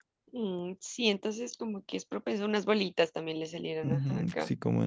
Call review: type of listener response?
taking over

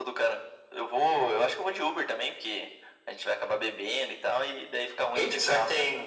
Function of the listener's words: taking over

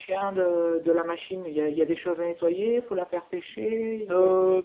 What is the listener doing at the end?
taking over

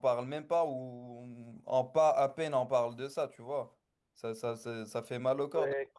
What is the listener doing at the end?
listening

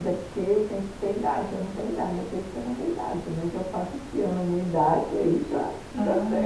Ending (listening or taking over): taking over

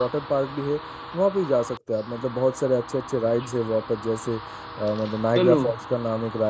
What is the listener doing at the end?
listening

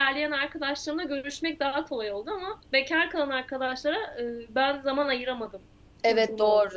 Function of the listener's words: taking over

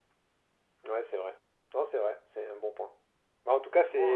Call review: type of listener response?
listening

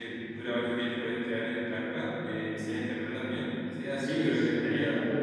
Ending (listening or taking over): taking over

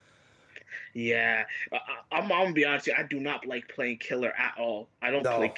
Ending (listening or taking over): listening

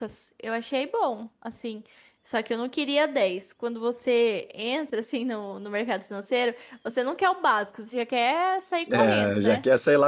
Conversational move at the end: taking over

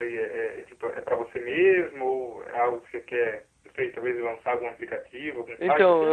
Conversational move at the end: taking over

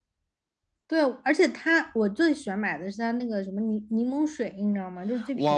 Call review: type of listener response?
taking over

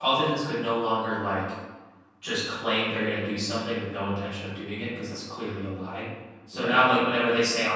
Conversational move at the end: listening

